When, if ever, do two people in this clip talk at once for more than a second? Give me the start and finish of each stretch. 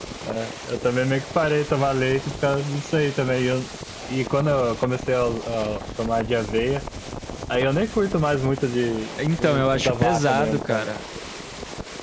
9.4-10.9

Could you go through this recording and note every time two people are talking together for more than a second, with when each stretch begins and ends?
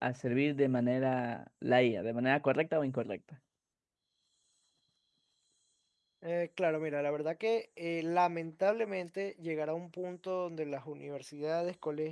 none

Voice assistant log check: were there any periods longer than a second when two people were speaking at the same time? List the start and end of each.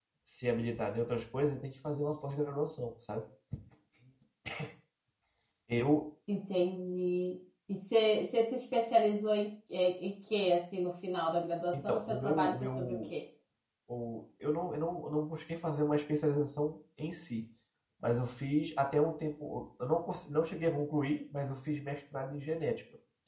11.7-12.9

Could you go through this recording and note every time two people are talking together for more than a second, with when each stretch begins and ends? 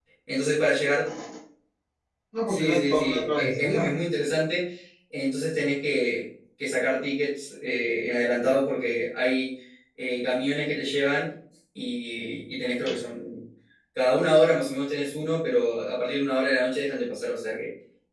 2.5-3.9

